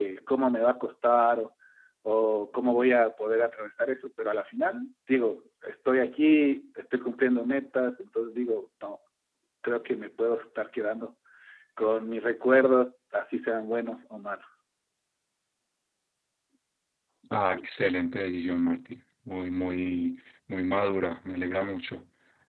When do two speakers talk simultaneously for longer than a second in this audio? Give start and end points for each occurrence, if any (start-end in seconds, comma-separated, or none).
none